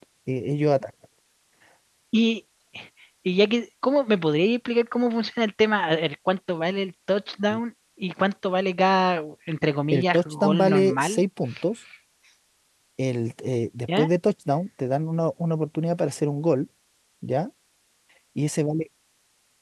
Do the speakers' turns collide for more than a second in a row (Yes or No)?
Yes